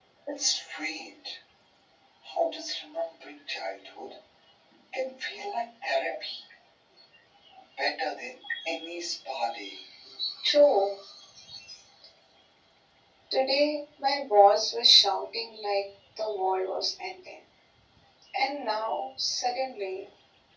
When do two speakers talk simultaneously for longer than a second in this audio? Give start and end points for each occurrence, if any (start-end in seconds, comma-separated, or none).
none